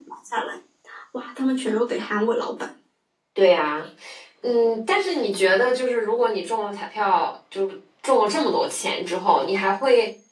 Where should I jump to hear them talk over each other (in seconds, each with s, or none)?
none